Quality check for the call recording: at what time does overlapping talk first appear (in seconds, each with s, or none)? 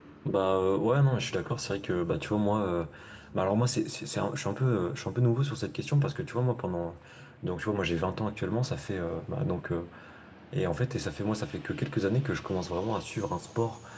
none